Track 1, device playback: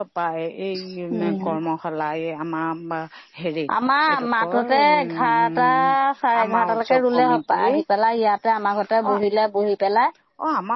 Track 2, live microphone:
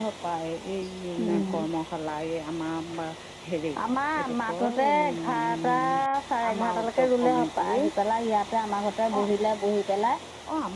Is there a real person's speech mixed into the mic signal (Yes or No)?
No